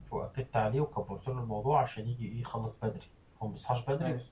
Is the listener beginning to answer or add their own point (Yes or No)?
No